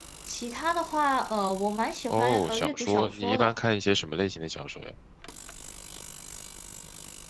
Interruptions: present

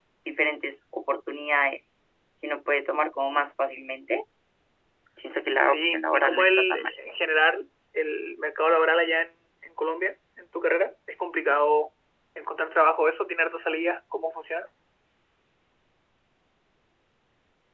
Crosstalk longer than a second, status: present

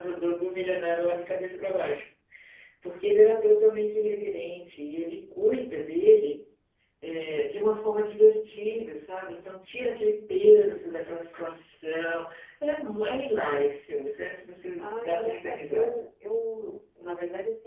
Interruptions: present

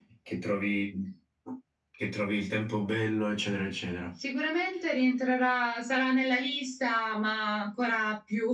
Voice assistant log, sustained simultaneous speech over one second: none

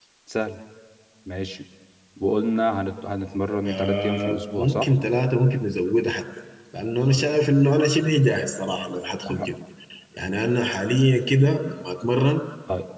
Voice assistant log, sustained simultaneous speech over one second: present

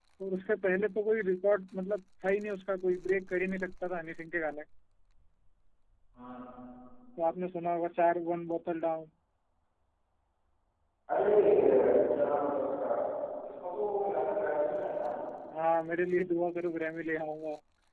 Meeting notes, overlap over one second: none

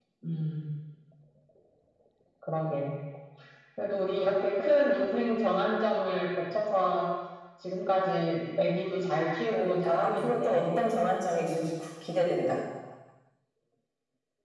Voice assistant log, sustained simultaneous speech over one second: present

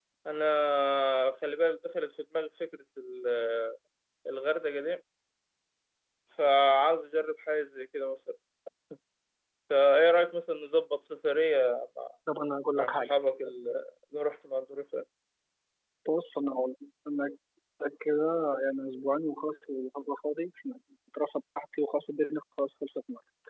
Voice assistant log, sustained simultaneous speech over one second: none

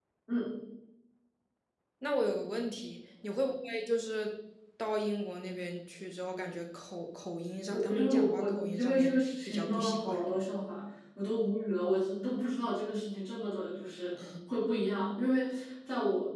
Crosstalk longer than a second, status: present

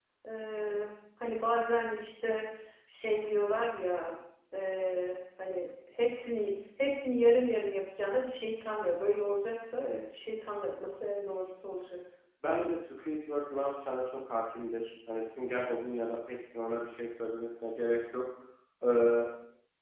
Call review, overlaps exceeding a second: none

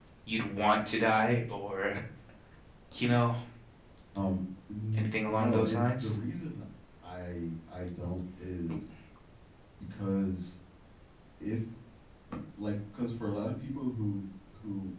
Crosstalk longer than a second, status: present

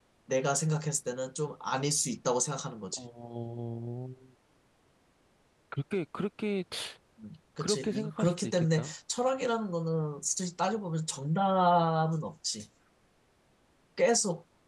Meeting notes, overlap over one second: present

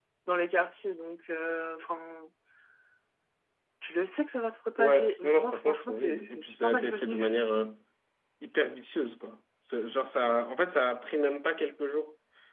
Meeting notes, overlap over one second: present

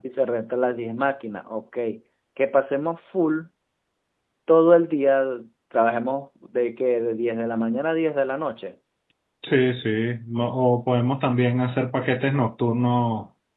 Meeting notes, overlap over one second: none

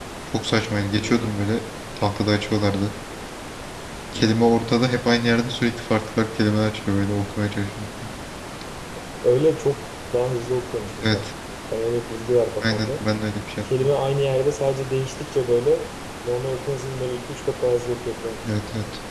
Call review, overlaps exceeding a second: none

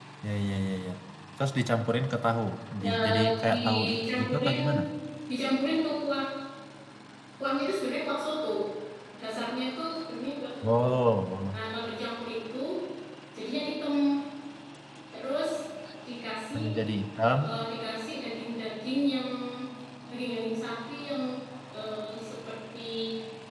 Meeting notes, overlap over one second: present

